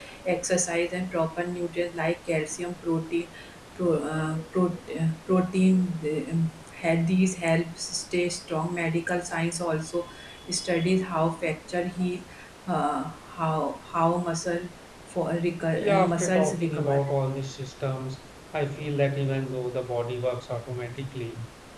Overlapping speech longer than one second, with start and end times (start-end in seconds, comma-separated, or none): 15.8-17.1